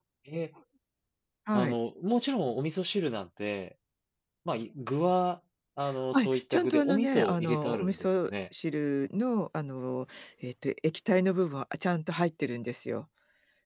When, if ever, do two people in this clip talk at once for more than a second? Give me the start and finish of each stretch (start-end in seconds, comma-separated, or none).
6.1-8.3